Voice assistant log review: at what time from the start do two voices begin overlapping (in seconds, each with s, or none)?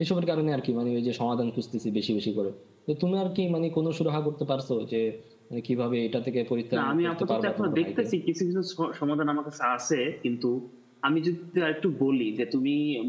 6.7 s